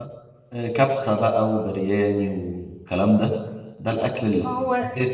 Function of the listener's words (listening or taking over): listening